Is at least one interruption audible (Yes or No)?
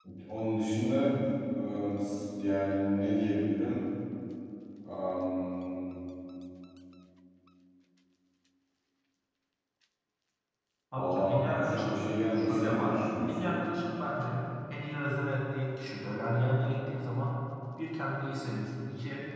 Yes